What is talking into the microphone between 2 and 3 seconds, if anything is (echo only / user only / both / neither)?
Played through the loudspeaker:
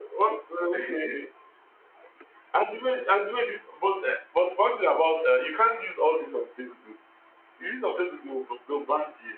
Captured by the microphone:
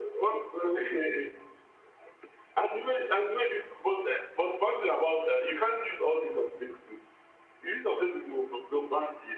echo only